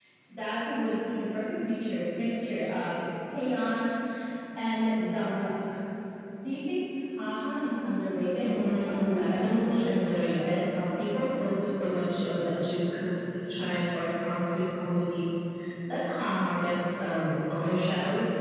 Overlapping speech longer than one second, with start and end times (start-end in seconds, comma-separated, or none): 8.4-10.5